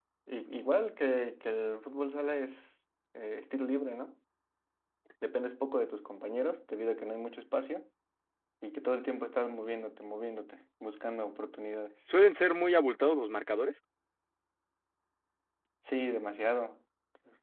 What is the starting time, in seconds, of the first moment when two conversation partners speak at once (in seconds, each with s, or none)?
none